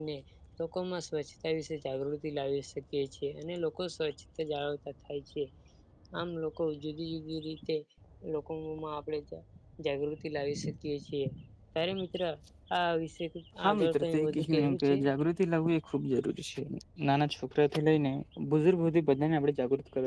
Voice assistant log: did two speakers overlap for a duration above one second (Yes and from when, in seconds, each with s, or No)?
Yes, from 13.6 s